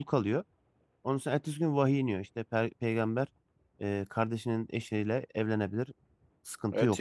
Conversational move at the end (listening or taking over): taking over